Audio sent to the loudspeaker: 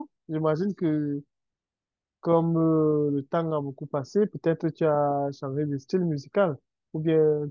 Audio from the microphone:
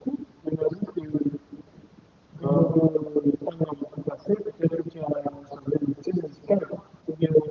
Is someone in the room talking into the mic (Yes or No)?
Yes